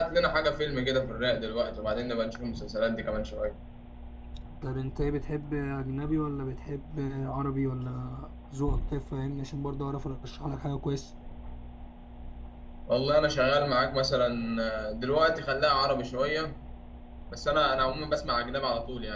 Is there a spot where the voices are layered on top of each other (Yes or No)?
No